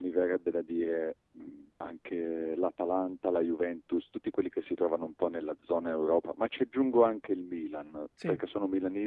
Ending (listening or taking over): listening